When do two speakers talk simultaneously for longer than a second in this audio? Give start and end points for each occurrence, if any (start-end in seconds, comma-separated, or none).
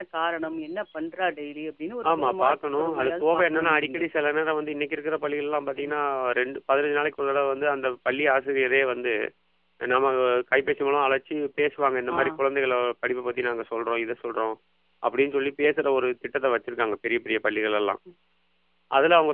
2.1-4.0